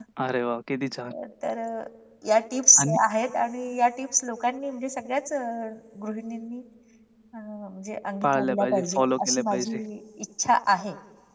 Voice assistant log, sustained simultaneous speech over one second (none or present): present